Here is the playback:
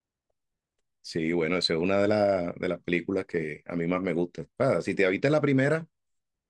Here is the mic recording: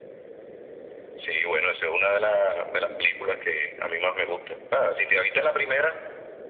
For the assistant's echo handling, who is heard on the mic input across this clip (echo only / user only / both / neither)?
echo only